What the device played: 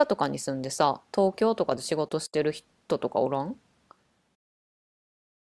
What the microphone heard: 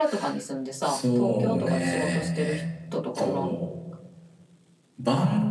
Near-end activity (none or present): present